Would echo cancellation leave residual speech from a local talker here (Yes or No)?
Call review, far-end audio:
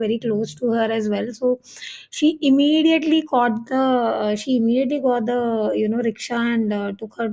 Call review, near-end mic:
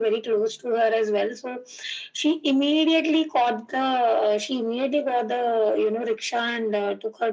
No